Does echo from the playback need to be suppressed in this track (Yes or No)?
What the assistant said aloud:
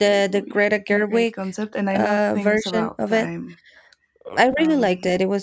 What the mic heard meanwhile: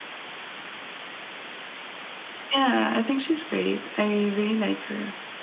No